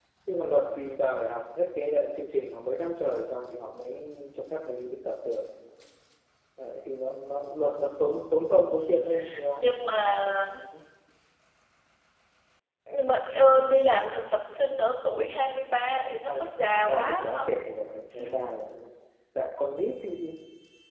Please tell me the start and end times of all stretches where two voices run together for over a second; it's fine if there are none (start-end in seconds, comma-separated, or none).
16.0-17.5